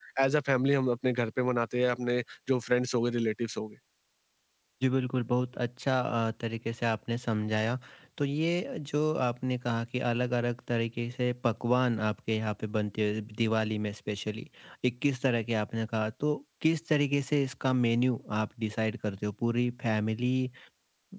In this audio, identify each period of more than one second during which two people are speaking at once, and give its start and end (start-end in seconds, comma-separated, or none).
none